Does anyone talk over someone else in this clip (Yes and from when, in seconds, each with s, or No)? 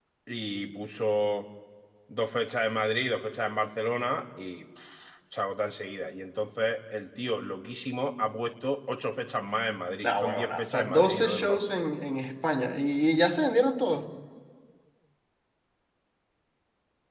Yes, from 10.0 s